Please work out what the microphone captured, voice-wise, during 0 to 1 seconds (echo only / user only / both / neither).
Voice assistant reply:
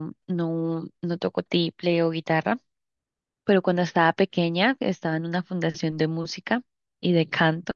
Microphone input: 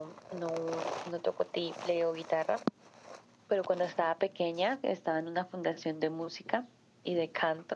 echo only